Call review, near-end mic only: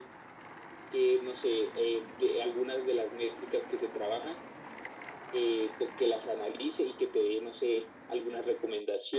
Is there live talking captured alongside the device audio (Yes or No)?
No